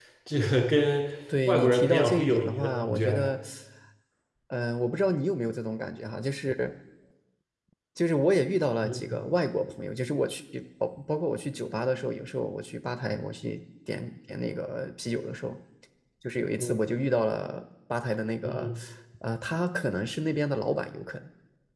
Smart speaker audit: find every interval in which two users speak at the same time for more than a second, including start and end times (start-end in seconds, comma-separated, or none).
1.5-3.3